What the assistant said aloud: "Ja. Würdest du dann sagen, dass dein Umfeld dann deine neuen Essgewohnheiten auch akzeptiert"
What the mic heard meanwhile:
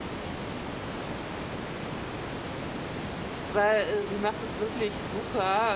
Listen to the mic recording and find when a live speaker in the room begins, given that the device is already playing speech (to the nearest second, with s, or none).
3 s